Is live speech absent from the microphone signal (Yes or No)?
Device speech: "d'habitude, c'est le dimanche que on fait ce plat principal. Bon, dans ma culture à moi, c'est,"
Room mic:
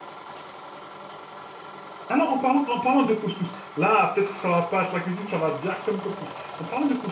No